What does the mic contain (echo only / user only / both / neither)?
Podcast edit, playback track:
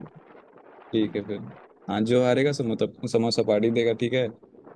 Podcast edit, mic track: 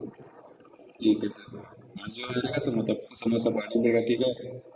echo only